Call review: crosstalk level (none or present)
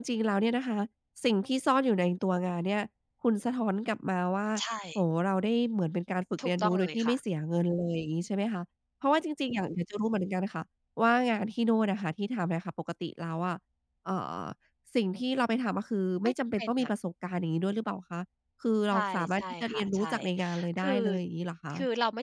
present